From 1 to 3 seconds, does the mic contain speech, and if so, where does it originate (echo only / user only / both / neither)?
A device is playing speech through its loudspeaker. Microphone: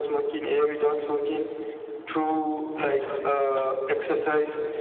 echo only